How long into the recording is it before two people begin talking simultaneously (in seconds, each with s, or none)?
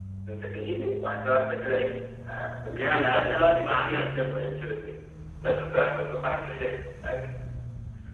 2.7 s